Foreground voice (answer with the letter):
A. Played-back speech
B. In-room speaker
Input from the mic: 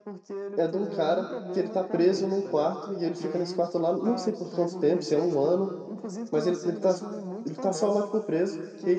B